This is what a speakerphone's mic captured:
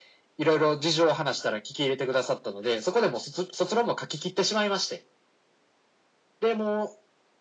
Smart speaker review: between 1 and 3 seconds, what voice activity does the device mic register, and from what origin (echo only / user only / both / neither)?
echo only